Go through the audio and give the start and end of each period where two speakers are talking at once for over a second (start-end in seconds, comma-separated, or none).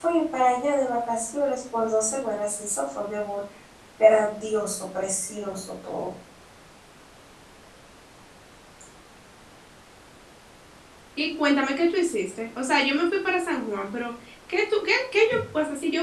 none